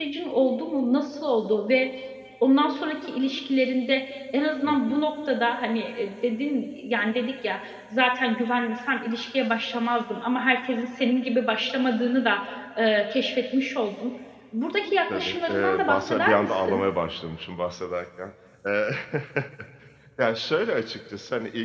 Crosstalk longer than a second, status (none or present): present